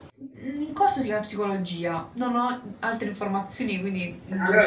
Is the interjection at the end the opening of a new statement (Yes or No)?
Yes